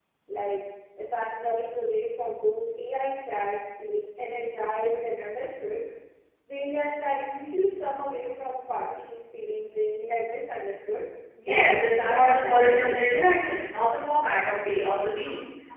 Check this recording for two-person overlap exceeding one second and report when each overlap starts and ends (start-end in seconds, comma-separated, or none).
11.5-12.9